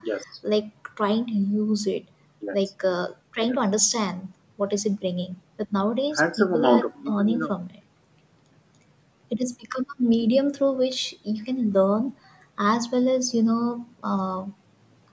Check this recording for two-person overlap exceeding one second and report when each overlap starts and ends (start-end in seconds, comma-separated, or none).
6.2-7.5